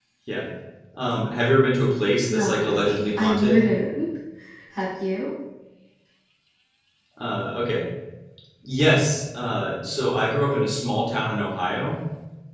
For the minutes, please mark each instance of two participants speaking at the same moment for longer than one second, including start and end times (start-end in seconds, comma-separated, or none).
2.3-3.6